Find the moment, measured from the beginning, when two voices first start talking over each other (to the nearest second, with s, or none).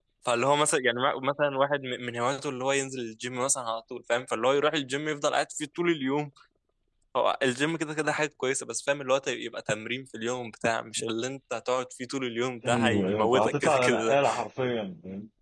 13 s